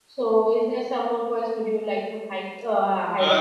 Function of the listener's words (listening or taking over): taking over